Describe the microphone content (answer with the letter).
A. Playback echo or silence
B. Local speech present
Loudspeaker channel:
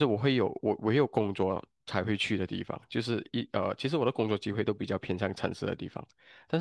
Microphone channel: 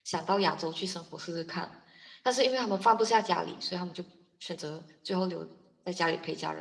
B